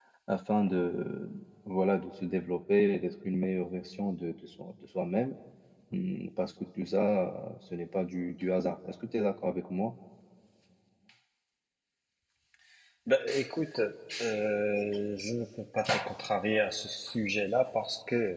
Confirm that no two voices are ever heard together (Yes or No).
Yes